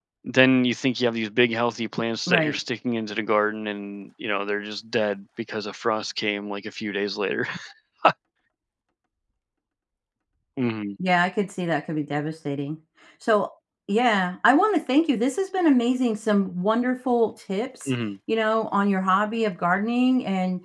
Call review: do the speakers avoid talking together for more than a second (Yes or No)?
Yes